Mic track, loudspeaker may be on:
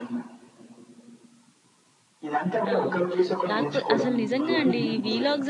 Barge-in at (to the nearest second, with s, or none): 3 s